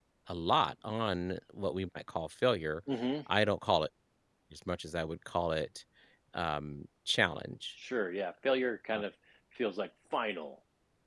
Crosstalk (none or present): none